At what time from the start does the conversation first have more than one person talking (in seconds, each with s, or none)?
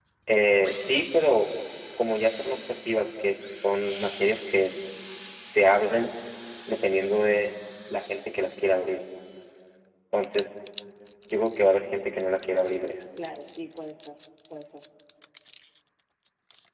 none